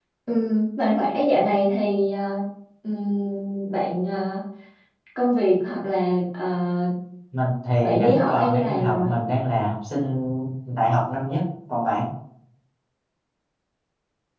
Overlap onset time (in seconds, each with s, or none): 7.8 s